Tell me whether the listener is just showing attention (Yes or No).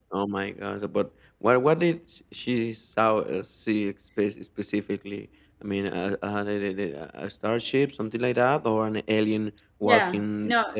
No